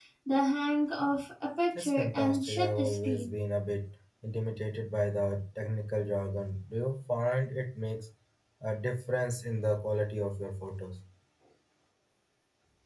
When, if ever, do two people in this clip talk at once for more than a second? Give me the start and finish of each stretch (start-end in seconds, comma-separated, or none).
1.8-3.3